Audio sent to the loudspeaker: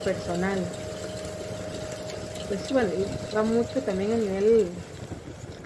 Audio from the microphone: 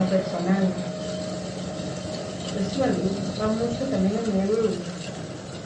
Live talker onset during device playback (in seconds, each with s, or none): none